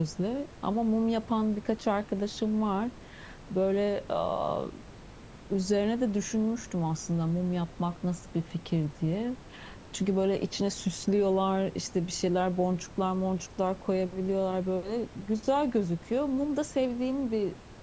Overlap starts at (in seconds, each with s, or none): none